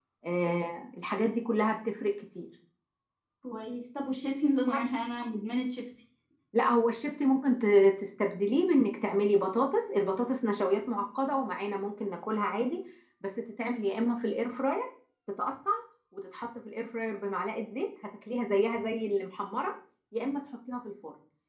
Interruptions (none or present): none